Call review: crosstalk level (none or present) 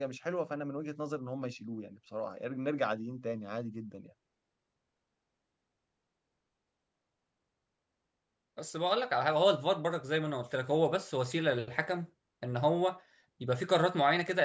none